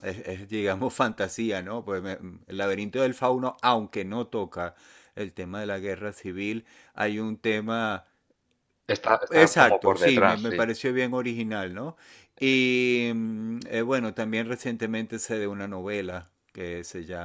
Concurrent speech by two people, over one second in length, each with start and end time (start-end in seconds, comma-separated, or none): 9.4-10.6